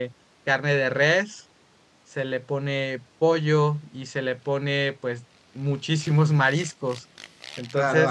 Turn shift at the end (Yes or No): Yes